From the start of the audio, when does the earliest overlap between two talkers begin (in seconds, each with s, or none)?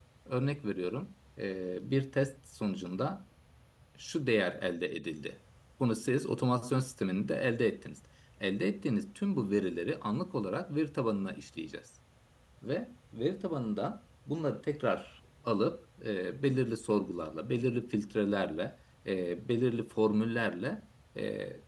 none